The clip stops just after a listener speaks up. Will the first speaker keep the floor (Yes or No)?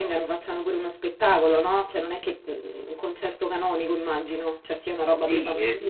No